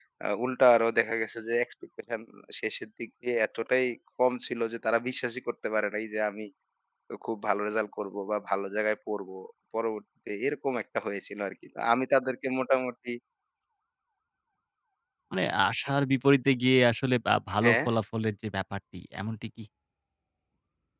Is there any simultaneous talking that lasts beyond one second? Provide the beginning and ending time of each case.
none

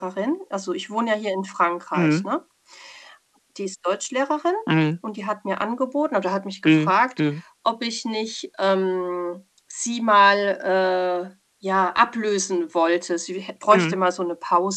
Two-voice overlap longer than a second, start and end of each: none

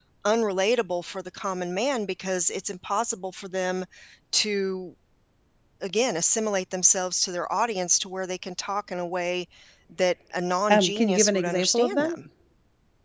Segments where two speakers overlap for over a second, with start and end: 10.7-12.2

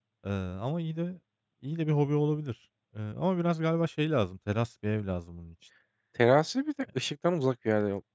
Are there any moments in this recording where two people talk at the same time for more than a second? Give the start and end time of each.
none

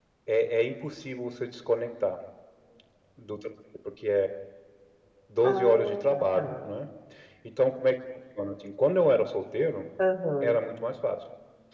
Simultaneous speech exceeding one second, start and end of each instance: 5.5-6.7

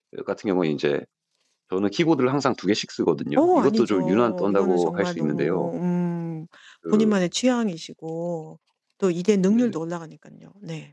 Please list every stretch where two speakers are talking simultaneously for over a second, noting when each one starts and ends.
3.4-5.7

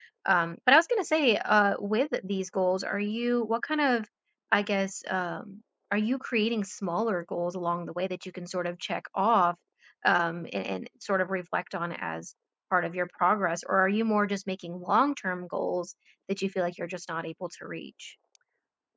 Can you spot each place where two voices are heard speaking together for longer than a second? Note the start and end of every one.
none

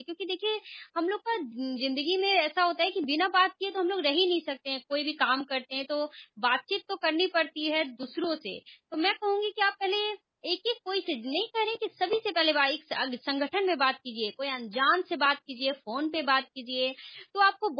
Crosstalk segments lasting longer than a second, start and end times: none

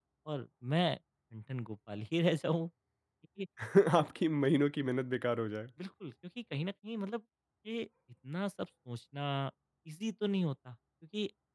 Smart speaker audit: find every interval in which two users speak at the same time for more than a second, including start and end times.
none

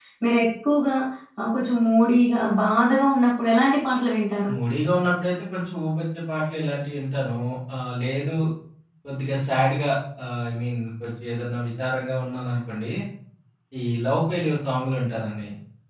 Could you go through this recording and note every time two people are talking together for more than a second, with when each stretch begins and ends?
none

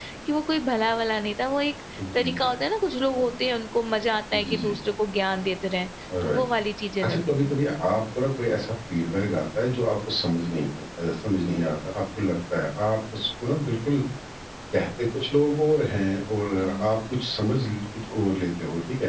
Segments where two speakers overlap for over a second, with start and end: none

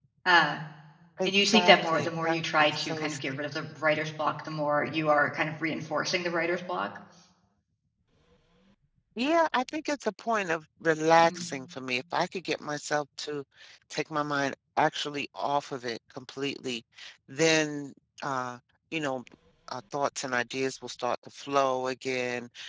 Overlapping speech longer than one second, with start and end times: 1.3-3.1

